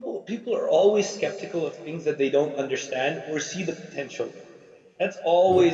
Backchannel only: Yes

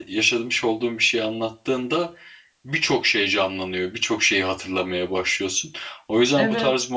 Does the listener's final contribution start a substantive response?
No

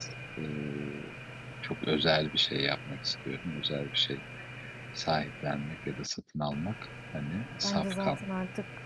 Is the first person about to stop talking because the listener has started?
Yes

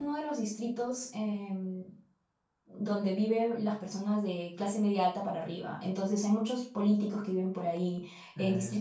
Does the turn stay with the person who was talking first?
Yes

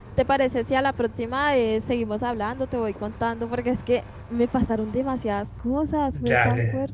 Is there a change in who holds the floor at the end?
Yes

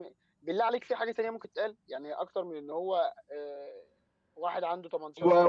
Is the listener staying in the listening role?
No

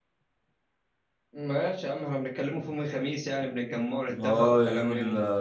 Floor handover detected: Yes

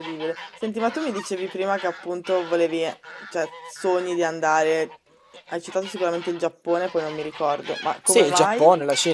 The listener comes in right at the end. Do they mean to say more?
Yes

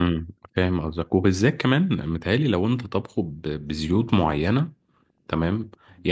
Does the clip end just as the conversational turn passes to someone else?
No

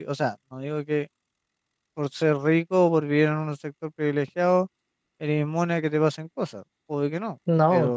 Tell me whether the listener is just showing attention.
Yes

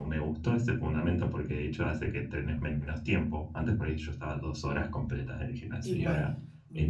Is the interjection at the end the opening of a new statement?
No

